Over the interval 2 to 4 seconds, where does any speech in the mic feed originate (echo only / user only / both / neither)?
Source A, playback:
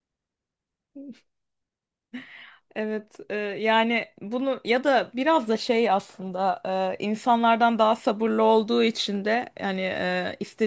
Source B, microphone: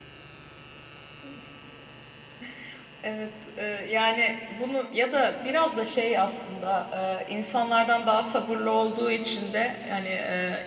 echo only